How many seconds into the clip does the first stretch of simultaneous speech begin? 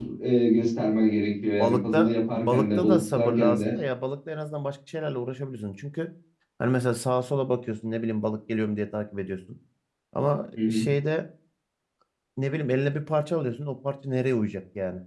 2 s

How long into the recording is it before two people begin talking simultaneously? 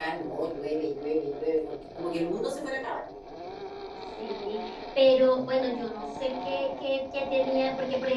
none

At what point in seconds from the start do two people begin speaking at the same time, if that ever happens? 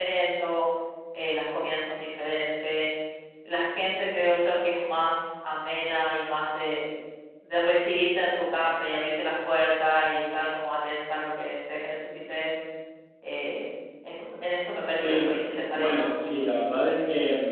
15 s

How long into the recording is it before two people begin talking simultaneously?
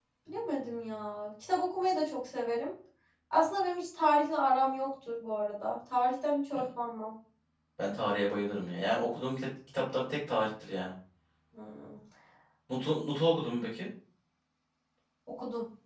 none

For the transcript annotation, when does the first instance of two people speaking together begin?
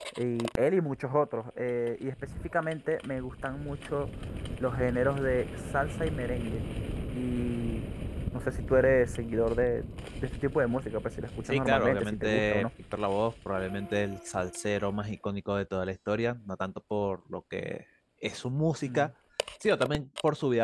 11 s

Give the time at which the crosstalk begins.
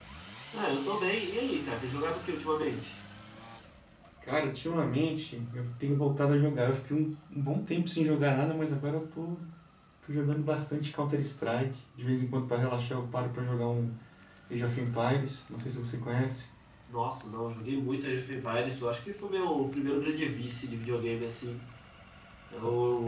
none

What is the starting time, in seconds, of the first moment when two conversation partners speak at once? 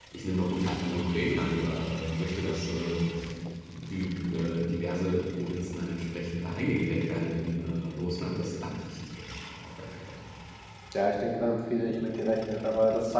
none

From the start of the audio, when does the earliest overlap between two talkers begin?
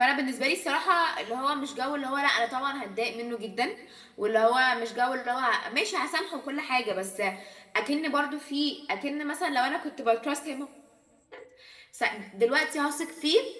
none

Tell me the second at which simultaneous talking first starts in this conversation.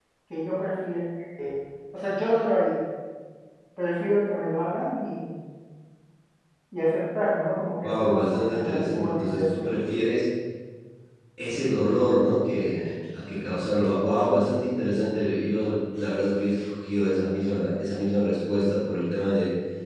8 s

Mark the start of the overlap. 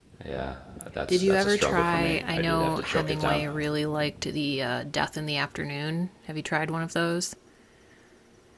1 s

